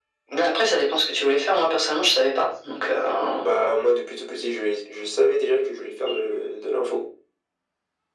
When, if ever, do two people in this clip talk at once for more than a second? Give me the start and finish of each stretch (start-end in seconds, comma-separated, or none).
none